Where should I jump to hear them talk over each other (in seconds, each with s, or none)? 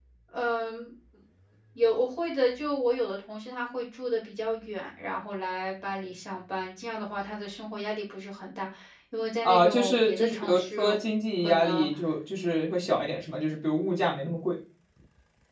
9.4 s